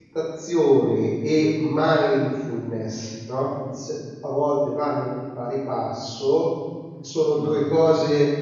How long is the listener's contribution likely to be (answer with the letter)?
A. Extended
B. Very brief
B